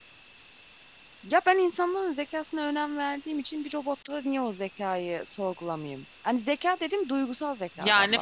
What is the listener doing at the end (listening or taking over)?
taking over